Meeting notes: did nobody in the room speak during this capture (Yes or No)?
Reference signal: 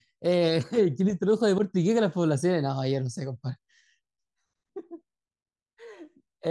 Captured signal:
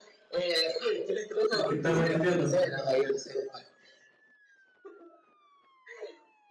No